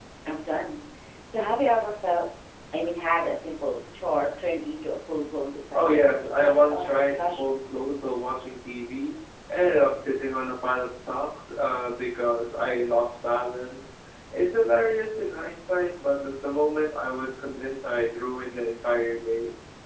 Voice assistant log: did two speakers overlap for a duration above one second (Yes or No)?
Yes